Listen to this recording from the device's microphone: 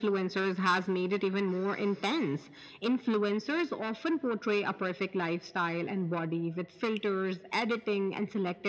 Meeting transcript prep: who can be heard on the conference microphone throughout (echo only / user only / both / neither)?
echo only